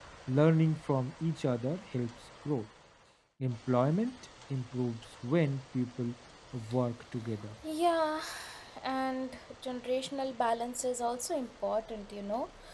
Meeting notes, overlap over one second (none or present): none